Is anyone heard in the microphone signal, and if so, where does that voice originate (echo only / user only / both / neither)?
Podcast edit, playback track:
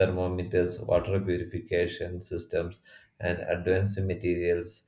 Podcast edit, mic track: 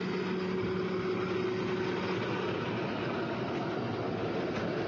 neither